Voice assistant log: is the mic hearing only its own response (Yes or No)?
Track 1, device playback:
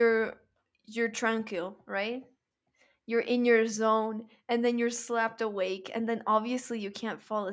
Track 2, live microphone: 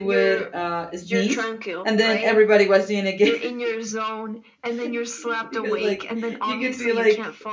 No